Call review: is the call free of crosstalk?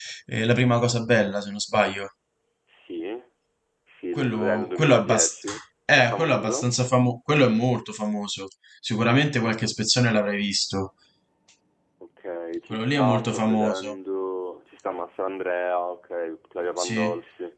No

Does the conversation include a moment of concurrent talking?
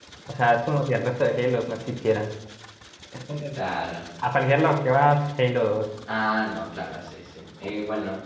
No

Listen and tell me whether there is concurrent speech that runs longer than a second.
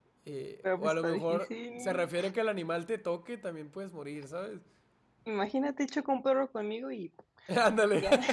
Yes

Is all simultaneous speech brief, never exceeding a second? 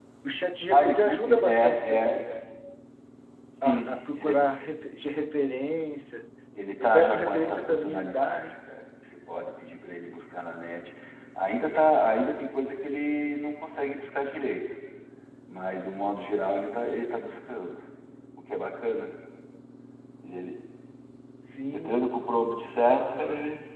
No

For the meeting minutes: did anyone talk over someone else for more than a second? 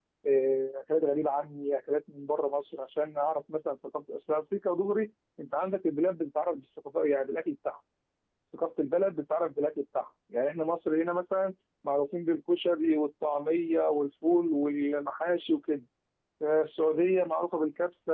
No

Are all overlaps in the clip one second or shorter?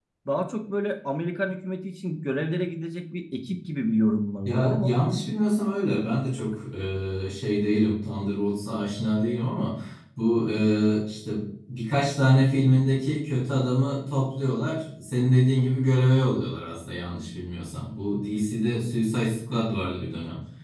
Yes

